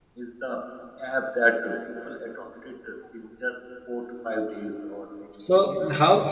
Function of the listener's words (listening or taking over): taking over